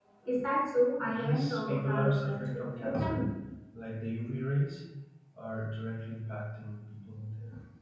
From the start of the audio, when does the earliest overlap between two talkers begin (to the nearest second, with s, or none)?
1 s